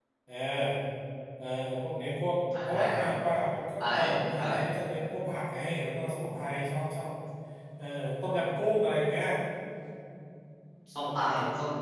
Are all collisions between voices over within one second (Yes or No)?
Yes